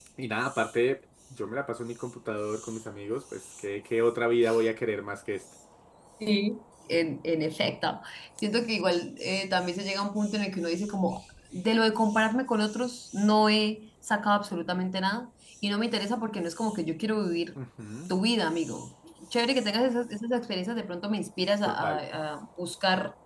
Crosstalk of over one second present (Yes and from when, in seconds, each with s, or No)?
No